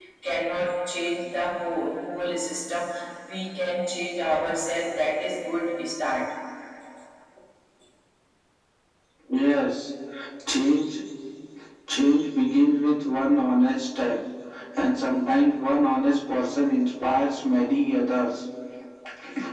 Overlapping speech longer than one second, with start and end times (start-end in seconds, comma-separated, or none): none